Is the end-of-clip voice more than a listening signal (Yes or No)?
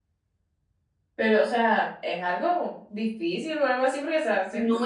Yes